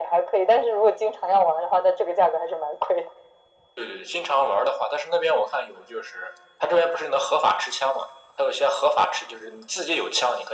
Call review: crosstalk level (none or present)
none